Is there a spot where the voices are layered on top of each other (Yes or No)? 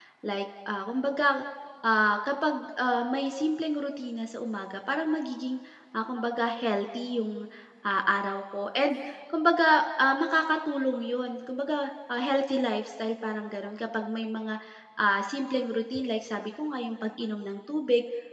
No